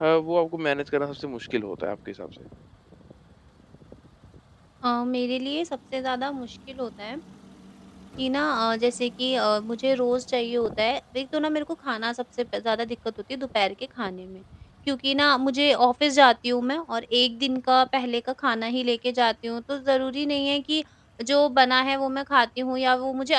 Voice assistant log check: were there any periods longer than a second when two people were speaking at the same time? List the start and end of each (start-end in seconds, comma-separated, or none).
none